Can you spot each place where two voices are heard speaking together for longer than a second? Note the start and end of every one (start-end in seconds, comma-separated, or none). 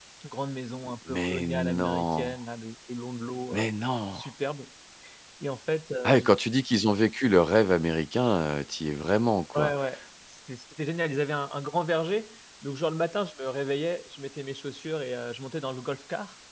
1.1-2.4